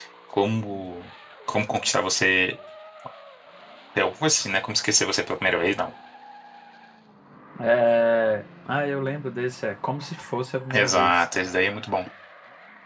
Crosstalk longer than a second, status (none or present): none